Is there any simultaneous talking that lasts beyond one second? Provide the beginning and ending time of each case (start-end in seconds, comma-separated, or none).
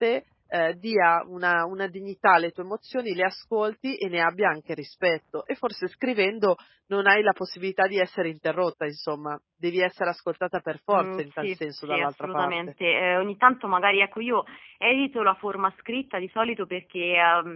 10.9-12.5